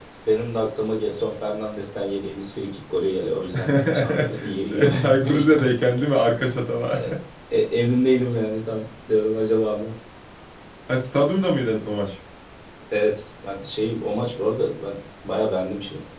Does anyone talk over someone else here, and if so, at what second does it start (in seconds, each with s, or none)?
3.5 s